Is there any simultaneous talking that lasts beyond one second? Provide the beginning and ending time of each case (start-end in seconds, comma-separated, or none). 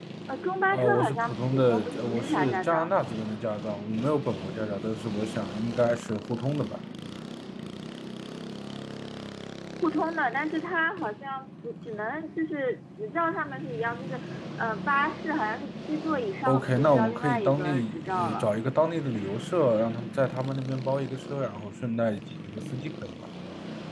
0.7-2.9, 16.5-18.5